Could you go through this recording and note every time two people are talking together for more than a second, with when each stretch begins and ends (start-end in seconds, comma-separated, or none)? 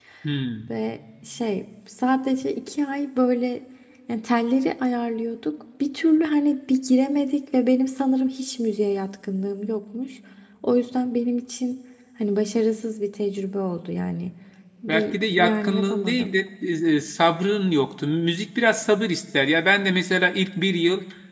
14.9-16.3